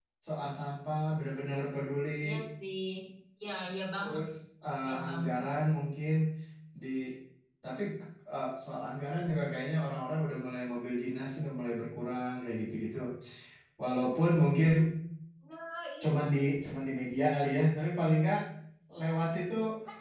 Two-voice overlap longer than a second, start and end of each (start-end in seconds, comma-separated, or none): none